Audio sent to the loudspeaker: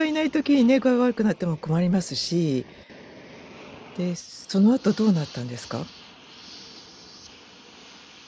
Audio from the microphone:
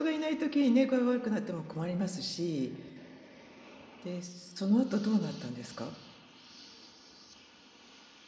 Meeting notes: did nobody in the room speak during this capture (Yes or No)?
Yes